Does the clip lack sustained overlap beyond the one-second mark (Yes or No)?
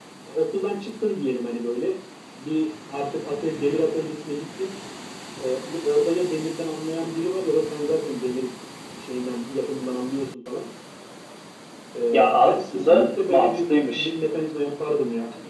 No